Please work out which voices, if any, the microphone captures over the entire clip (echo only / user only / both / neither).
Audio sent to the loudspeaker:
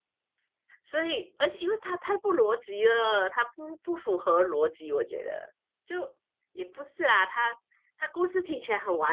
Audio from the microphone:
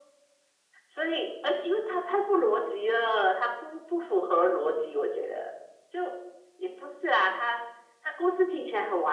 echo only